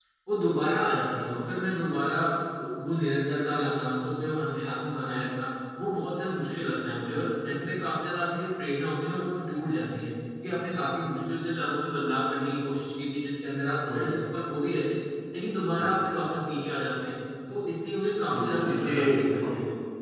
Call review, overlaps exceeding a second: present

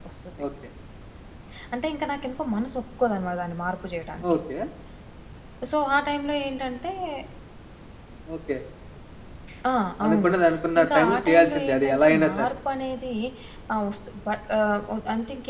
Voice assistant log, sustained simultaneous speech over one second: present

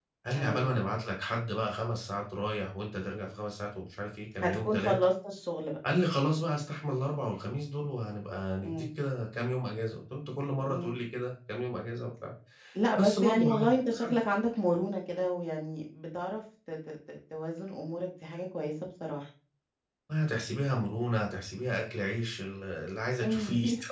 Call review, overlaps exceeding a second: present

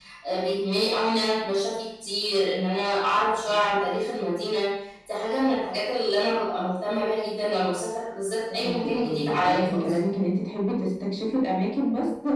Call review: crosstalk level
present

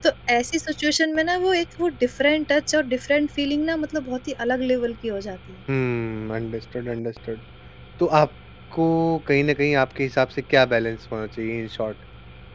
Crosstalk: none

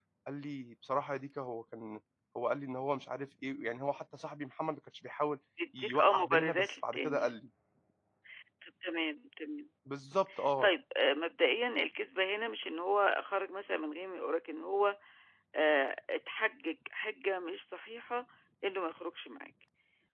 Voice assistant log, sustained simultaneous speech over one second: present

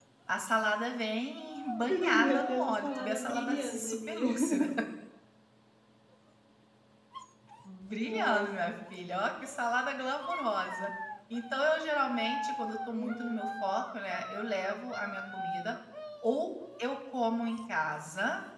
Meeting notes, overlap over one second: present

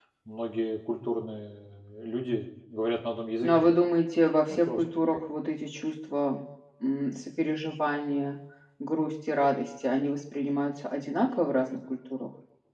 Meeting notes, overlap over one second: none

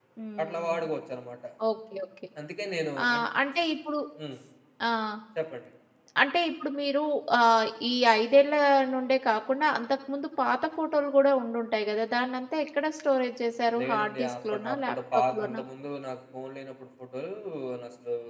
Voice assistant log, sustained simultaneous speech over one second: present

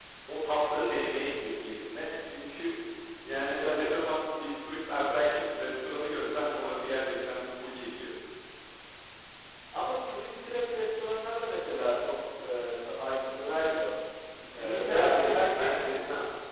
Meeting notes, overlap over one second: present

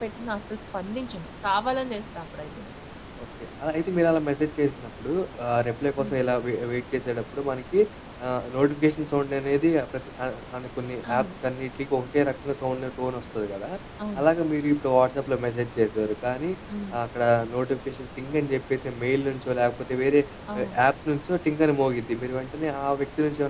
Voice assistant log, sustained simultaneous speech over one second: none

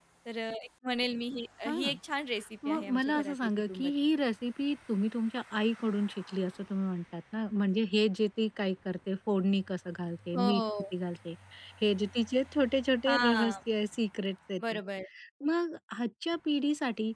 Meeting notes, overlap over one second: present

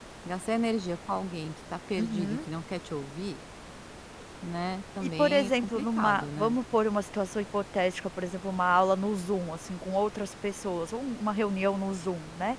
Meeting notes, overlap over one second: present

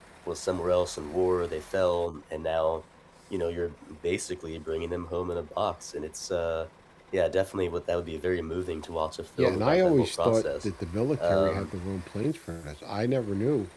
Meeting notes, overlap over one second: present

